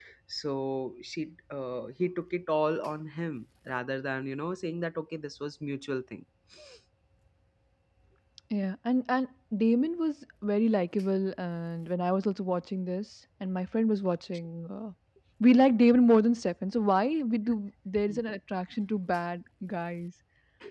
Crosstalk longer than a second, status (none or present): none